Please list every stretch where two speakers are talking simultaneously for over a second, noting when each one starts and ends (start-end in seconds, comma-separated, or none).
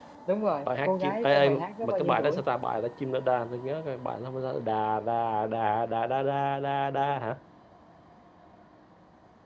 0.7-2.4